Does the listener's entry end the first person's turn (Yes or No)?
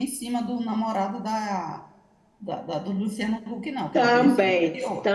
Yes